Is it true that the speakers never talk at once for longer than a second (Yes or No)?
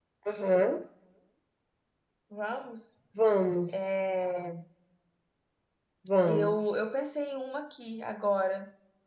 Yes